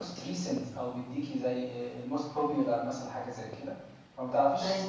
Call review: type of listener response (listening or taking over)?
listening